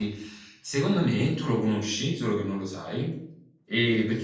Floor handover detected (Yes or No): No